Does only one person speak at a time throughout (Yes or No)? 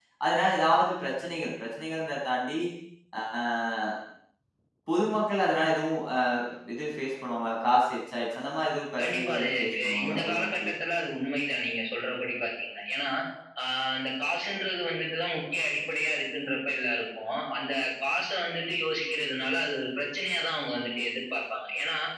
No